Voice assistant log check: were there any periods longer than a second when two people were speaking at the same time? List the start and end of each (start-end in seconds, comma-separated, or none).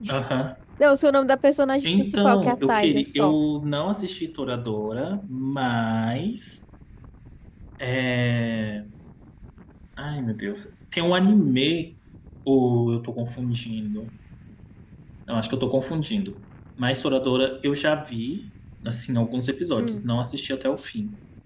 1.9-3.4